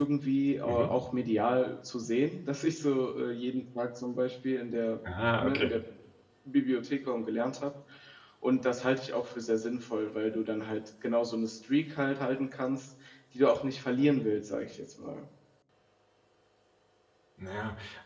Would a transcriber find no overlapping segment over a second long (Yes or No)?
Yes